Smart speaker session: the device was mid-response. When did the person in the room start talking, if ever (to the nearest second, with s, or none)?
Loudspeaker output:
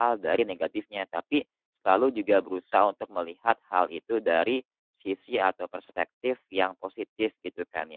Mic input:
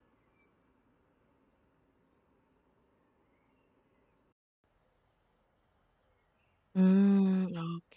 7 s